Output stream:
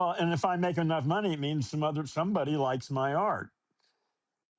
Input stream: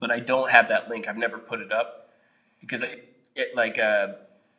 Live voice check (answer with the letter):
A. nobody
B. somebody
B